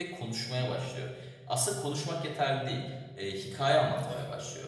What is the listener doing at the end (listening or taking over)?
listening